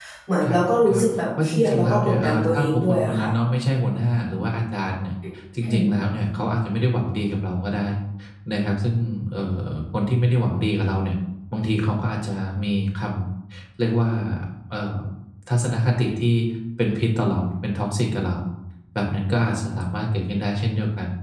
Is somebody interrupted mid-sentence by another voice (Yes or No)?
Yes